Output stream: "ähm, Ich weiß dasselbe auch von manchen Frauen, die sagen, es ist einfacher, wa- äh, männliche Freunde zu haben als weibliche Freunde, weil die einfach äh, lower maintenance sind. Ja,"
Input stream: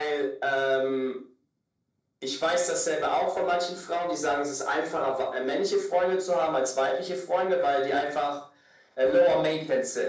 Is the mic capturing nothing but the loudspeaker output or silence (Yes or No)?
Yes